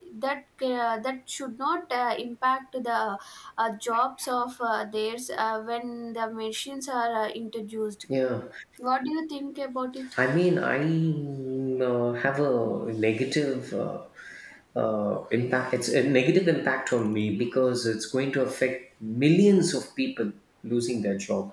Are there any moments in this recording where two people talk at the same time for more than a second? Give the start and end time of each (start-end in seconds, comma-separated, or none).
none